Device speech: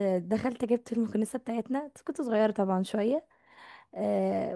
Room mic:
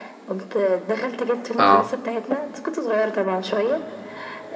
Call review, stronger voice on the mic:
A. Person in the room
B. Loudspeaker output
A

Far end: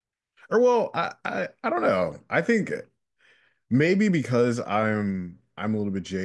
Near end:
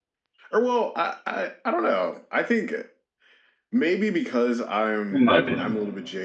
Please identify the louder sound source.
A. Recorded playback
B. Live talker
B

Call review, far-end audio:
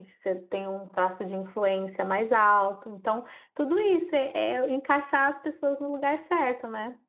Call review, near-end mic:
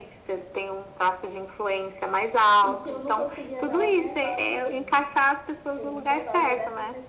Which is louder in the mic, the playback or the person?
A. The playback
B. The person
A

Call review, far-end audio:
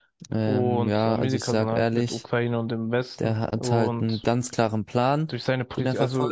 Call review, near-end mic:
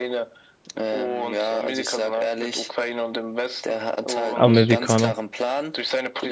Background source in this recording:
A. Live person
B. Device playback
B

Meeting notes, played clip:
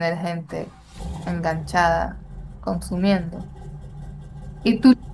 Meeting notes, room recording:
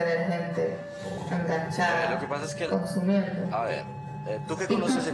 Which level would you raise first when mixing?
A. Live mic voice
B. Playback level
A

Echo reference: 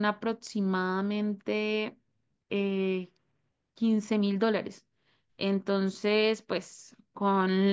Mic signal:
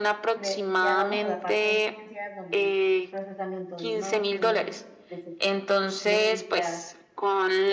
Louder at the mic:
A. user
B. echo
B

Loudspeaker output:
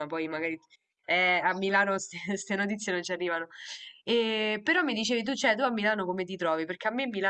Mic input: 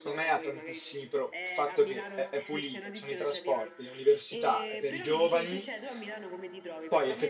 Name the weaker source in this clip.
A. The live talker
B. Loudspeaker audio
B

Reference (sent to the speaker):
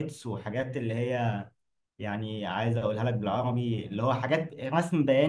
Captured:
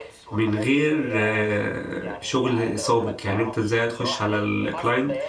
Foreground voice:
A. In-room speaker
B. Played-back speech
A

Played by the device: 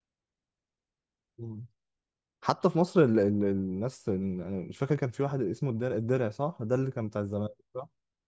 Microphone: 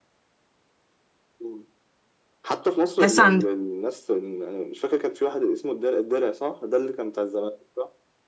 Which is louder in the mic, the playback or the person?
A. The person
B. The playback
A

